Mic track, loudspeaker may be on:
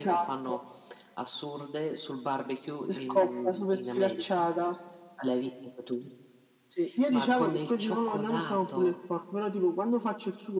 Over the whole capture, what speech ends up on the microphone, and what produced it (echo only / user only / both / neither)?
echo only